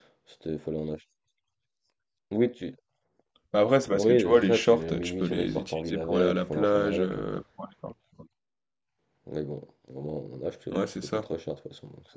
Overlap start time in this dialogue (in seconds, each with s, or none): 4.0 s